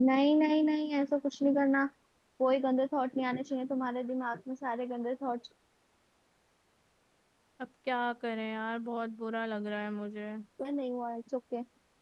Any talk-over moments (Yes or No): No